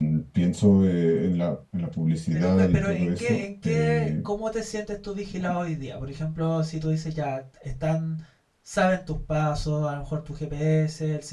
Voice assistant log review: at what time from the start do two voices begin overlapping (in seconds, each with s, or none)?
2.3 s